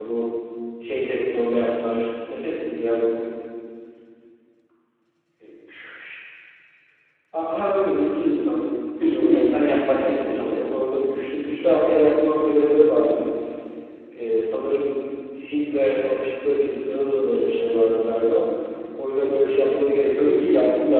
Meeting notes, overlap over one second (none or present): present